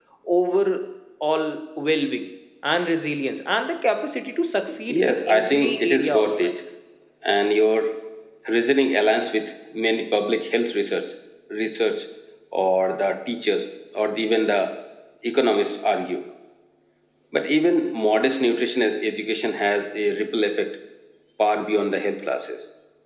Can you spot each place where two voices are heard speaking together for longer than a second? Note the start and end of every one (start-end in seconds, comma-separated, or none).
4.9-6.5